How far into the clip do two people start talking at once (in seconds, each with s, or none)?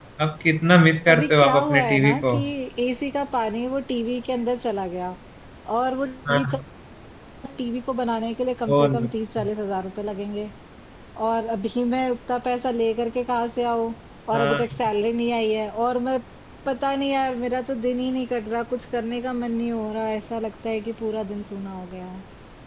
1.1 s